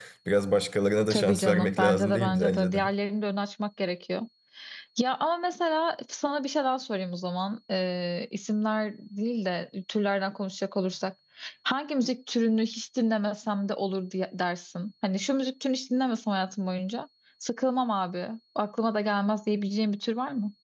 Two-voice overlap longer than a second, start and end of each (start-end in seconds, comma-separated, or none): 1.1-2.8